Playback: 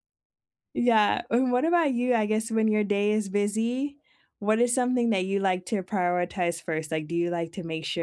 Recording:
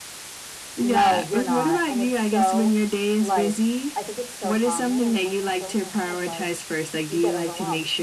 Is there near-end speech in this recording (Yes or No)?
Yes